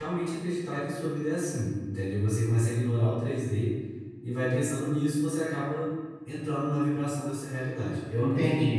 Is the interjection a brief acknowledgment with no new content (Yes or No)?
No